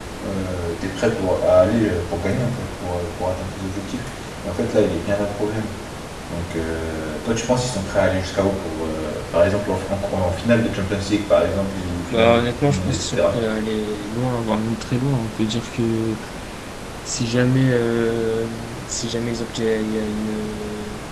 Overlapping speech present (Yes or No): Yes